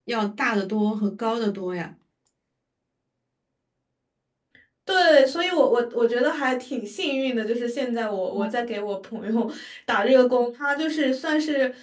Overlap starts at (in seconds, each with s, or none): none